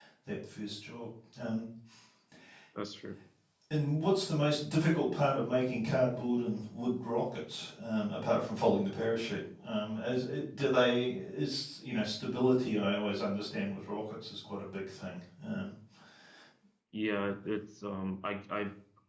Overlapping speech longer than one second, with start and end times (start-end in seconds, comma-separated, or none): none